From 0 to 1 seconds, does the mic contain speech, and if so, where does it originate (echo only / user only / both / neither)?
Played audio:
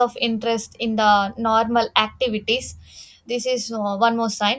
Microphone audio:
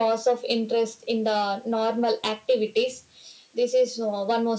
echo only